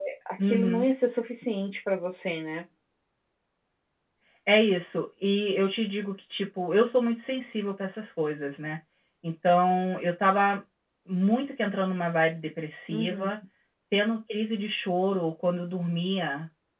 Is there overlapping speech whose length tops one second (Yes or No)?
No